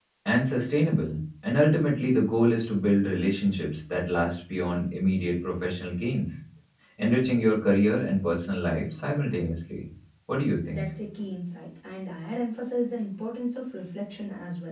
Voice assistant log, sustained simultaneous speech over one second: none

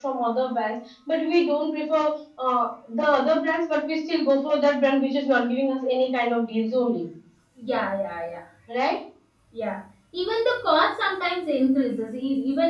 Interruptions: none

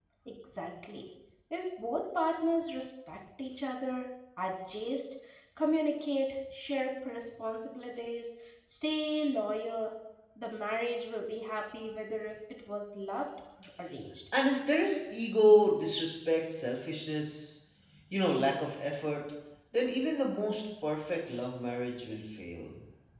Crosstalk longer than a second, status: none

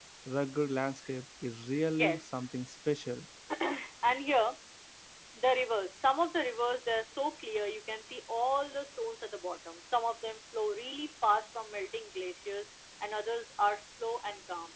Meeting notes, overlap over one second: none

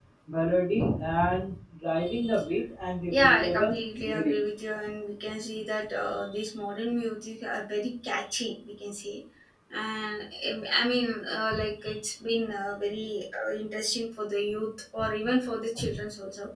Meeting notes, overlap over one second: present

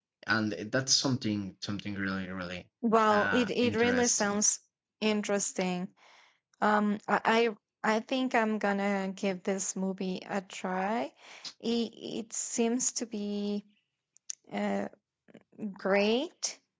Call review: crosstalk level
present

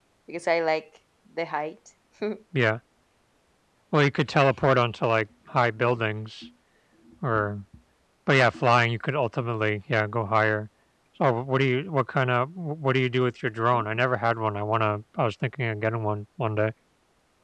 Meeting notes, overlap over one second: none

